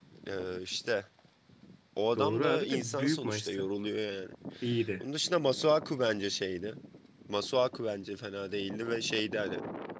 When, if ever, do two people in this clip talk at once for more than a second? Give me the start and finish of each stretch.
2.2-3.7

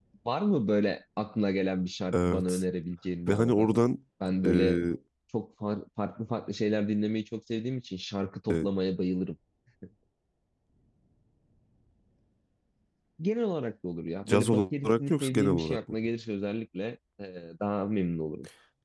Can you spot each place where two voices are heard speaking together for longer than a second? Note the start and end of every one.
14.3-15.8

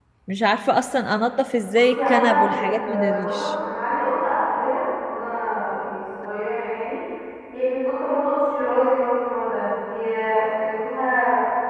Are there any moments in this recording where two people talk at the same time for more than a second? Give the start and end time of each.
1.7-3.5

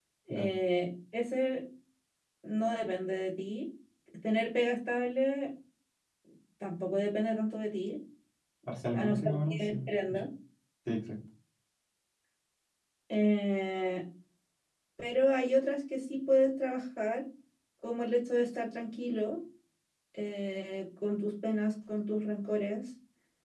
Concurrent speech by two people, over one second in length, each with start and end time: 8.9-10.2

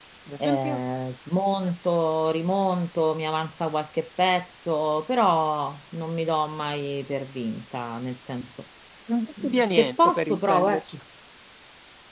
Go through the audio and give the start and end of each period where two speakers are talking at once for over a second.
9.4-10.8

